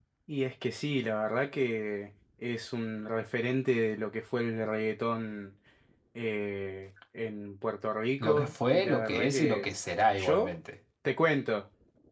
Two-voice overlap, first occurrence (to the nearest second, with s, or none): 8 s